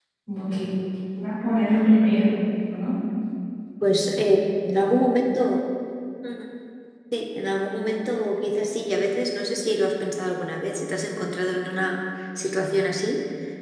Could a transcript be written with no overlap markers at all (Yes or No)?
Yes